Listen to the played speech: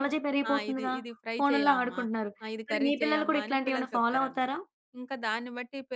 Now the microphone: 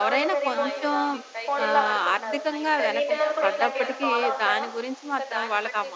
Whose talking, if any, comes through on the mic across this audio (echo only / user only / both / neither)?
both